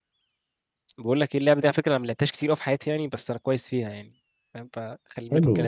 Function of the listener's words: taking over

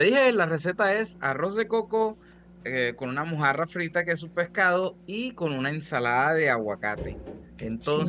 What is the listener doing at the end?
listening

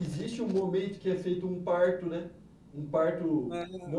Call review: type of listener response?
taking over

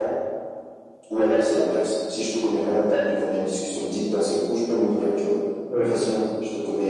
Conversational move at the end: listening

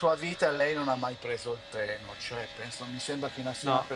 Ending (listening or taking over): listening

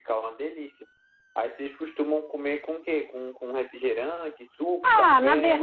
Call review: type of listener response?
taking over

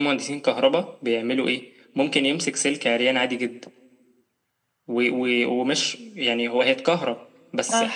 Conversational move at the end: listening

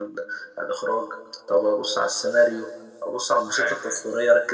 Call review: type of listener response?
listening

